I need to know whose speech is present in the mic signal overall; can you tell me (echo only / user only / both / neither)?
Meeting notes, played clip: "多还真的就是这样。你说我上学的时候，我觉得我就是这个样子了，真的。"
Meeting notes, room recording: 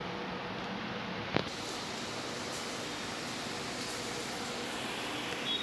neither